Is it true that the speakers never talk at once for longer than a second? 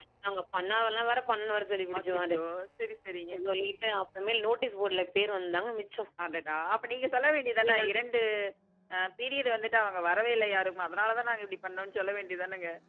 Yes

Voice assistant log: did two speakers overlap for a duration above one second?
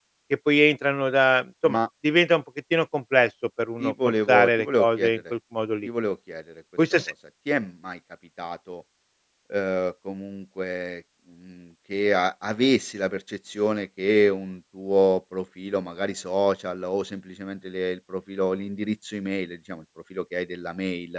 Yes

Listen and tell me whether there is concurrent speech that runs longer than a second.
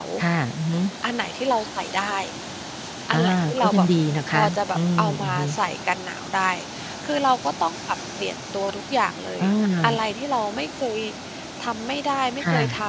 Yes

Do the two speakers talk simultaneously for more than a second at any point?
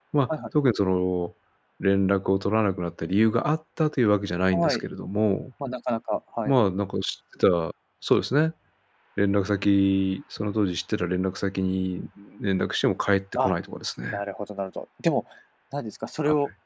No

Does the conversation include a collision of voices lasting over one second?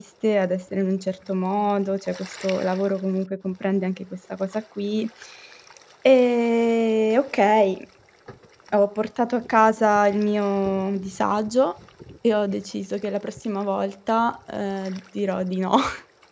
No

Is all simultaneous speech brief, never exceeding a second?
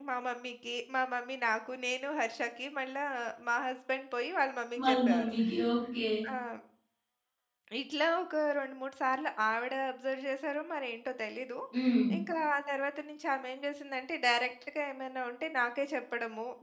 Yes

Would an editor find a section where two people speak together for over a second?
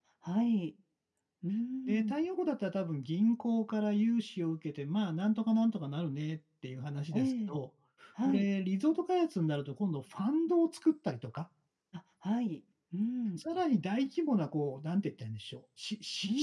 No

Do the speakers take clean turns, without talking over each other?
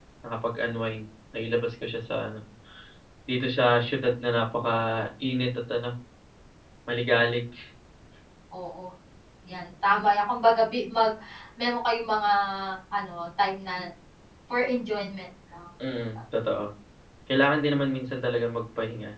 Yes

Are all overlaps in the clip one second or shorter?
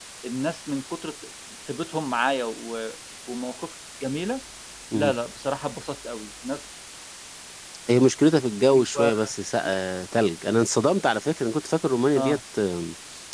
Yes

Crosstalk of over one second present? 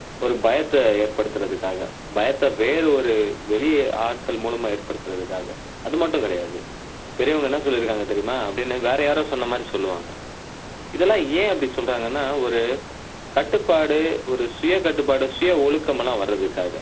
No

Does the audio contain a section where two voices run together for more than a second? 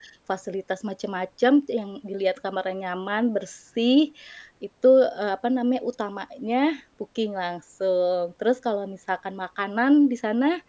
No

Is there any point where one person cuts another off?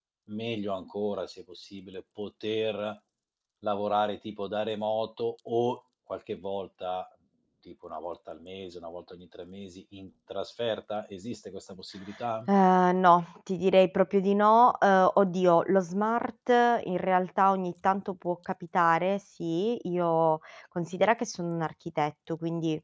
No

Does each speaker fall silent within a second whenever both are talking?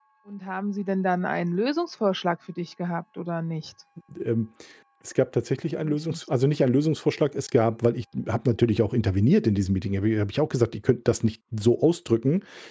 Yes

